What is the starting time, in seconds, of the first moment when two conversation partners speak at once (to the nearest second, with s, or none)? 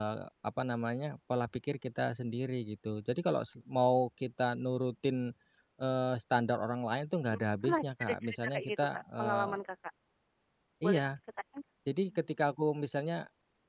7 s